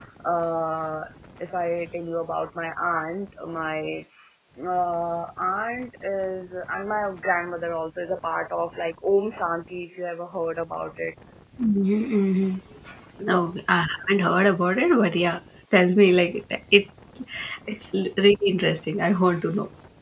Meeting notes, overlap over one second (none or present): none